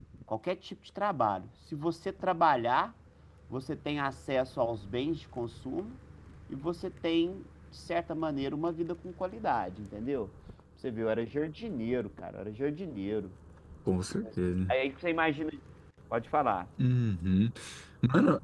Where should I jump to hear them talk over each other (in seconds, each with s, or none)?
none